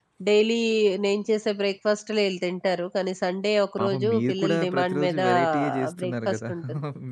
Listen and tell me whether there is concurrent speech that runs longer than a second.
Yes, from 3.8 s

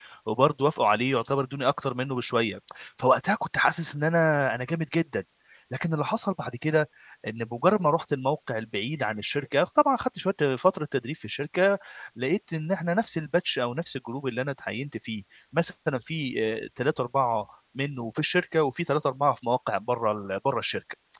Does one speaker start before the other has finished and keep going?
No

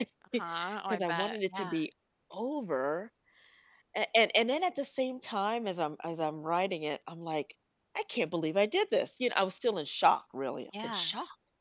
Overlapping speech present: Yes, from 0.5 s

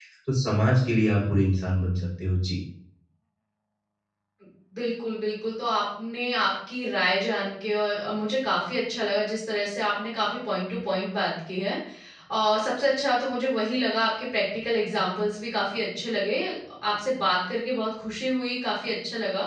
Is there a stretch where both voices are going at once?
No

